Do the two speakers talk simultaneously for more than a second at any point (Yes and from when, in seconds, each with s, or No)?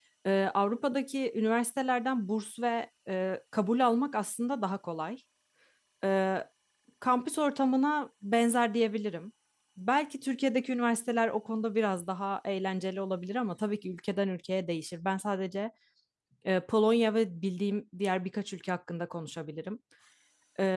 No